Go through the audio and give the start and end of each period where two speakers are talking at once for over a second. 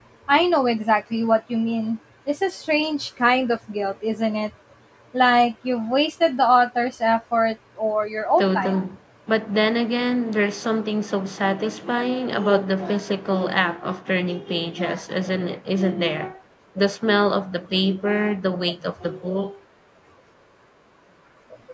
none

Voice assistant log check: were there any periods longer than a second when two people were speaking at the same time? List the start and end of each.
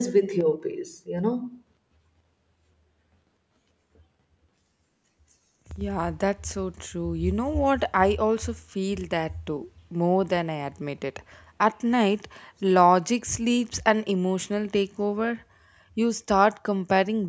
none

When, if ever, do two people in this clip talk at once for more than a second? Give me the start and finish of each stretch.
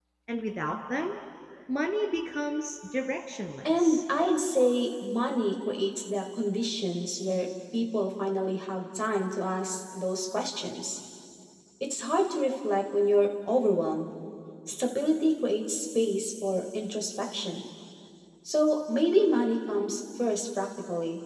none

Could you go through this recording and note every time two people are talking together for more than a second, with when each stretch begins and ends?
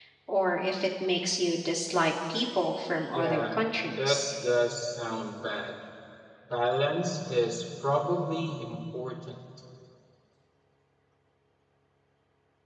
none

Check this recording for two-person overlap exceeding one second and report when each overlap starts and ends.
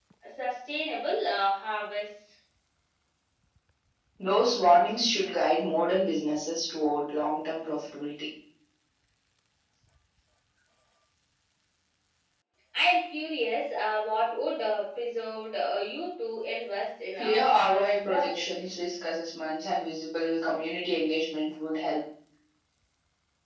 17.2-18.5

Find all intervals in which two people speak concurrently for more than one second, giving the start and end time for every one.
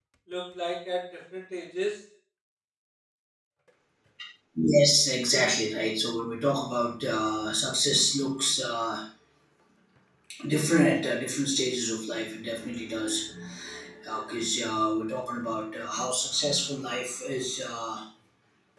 none

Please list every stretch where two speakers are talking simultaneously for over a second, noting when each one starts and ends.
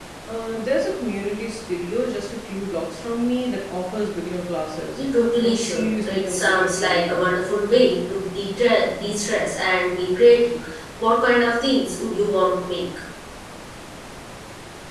5.4-7.2

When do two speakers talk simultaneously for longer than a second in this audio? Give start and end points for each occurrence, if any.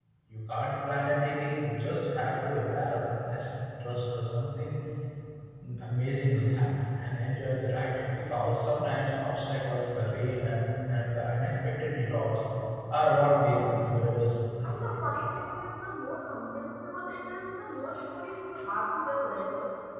none

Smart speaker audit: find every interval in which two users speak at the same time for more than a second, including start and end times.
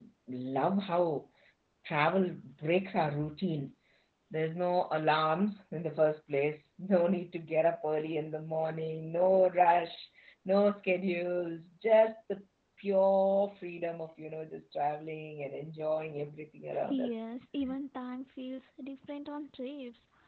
none

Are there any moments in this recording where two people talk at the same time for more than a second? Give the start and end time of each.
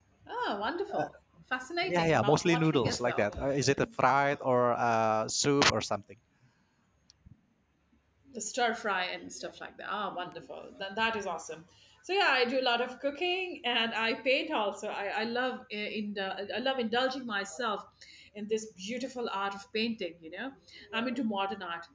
1.8-3.3

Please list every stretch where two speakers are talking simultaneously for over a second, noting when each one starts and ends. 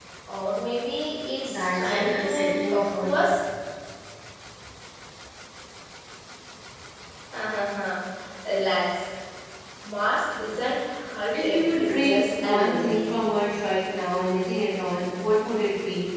1.5-3.1, 11.3-13.1

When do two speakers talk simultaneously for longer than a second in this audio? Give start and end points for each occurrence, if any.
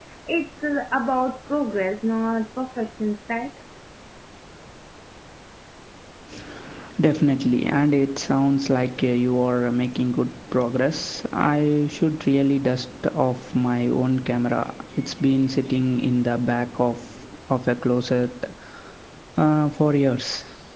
none

